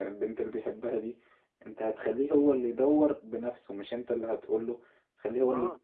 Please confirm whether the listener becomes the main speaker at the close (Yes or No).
No